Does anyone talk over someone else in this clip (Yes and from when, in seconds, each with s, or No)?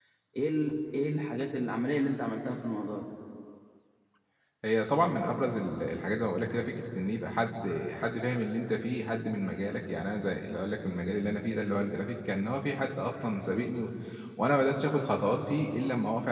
No